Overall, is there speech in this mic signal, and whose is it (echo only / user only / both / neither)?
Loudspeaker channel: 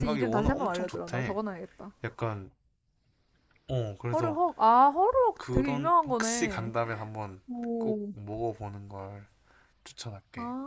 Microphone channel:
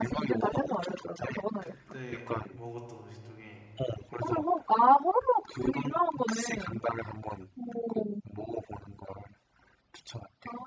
both